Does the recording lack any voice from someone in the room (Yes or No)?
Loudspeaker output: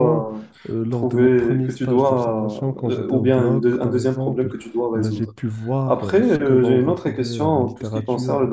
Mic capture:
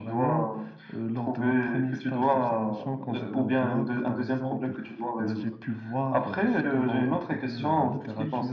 No